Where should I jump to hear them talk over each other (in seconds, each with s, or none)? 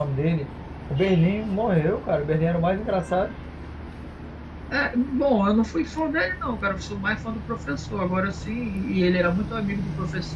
none